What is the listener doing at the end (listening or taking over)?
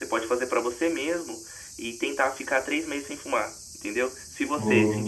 listening